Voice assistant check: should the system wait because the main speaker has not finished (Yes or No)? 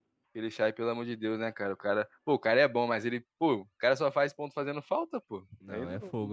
No